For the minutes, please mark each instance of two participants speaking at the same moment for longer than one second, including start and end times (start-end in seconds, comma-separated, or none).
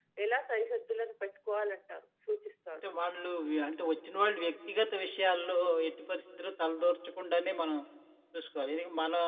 none